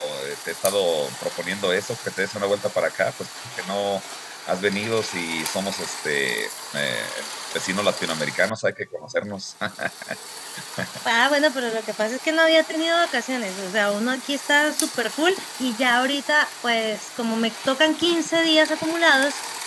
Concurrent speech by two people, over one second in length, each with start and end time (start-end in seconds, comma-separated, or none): none